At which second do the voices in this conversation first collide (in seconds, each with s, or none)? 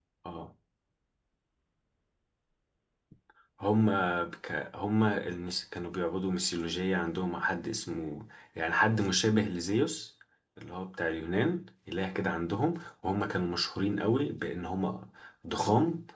none